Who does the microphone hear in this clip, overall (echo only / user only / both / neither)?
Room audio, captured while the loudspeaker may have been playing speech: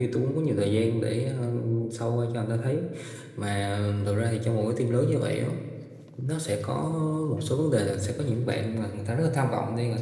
echo only